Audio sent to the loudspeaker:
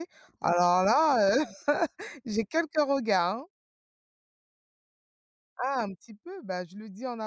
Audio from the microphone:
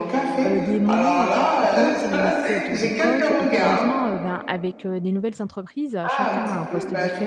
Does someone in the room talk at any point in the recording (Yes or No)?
Yes